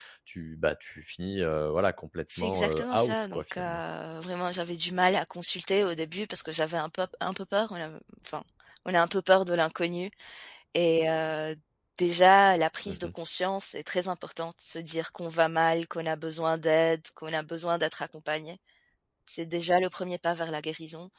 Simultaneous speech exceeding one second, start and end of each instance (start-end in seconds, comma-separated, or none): 2.4-3.8